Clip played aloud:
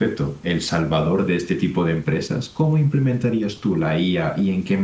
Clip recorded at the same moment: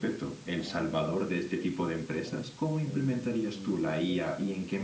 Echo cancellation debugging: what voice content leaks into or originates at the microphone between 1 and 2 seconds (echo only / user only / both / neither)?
both